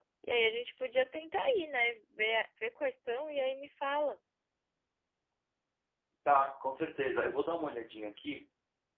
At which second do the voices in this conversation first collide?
none

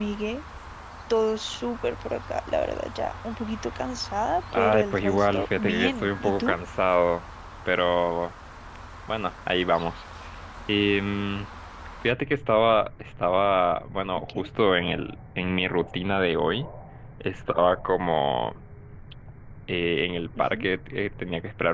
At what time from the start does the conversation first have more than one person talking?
5 s

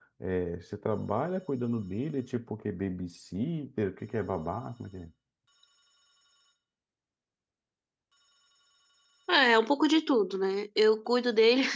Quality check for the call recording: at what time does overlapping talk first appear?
none

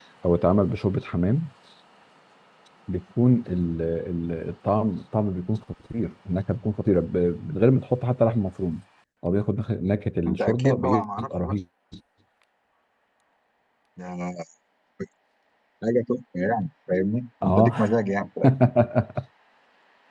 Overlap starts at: 10 s

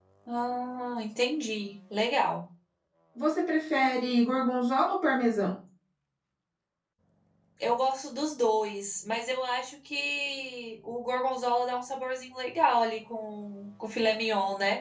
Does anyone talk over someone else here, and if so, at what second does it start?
none

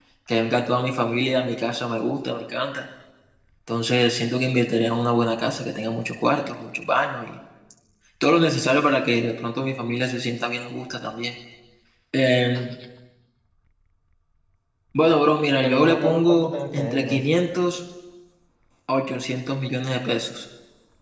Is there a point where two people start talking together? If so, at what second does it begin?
16 s

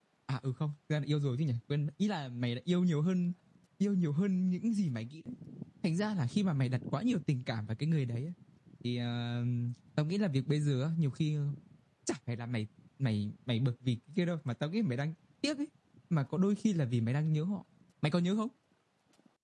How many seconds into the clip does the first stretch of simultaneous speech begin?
none

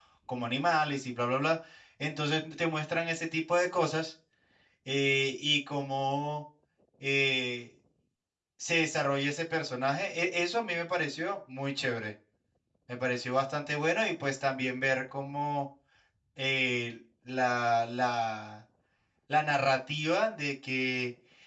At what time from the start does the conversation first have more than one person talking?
none

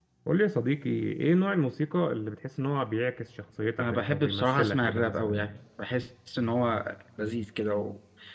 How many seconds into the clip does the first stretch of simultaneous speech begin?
4 s

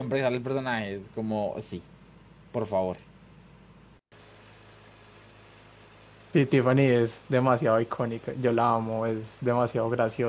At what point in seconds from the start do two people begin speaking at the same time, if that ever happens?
none

